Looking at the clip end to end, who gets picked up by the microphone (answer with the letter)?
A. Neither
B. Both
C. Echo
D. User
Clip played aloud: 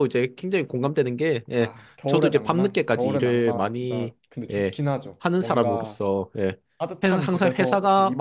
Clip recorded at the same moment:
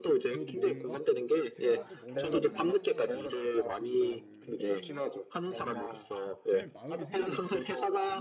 B